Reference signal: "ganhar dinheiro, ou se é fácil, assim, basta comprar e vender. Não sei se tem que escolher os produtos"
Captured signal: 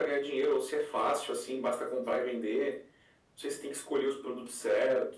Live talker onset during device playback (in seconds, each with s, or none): none